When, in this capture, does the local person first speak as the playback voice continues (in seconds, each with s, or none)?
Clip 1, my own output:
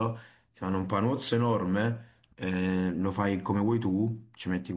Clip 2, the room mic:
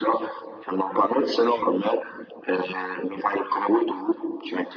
none